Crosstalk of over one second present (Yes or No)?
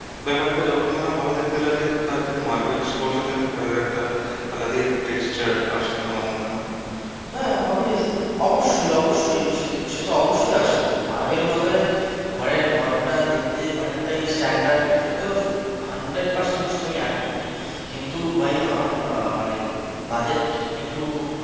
No